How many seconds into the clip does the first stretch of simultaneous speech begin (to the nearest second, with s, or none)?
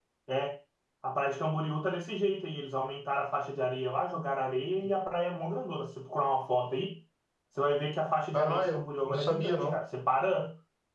8 s